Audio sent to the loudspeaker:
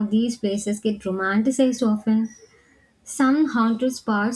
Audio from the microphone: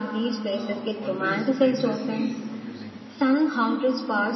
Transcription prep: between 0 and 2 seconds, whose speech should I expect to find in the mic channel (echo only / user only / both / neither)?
both